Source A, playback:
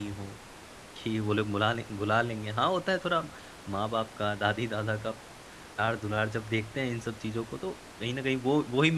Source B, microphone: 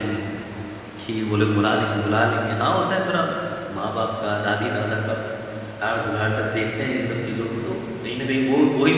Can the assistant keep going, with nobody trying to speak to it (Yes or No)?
Yes